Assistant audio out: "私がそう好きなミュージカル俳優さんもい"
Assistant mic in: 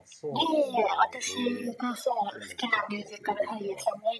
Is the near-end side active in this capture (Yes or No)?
Yes